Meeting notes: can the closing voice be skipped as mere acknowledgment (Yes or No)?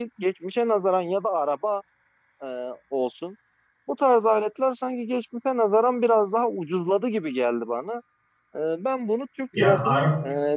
Yes